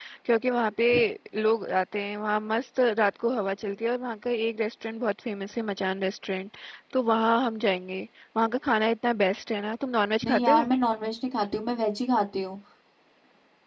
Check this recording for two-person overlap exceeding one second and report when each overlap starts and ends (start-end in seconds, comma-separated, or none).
none